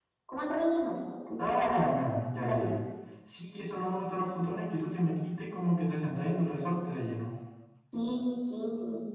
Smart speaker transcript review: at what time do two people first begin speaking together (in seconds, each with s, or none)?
1.4 s